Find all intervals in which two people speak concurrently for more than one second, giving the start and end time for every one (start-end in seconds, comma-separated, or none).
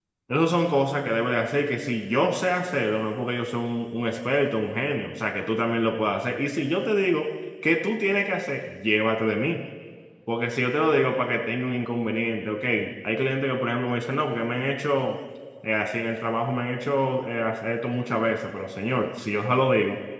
none